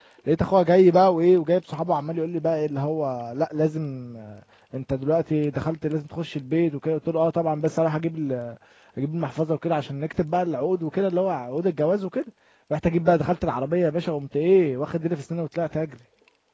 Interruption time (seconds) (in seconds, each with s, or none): none